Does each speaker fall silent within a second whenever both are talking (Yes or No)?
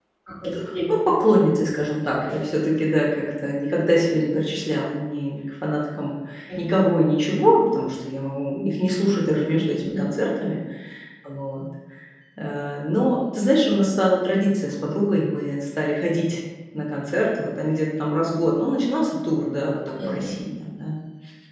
Yes